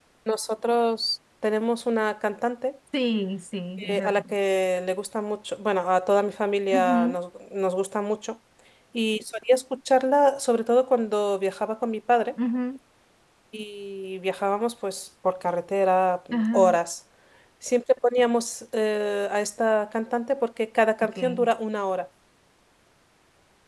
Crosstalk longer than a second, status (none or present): none